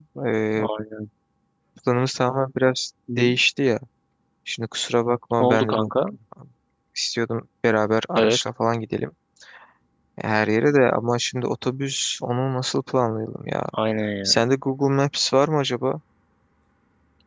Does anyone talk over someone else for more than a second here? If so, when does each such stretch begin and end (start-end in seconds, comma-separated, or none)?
none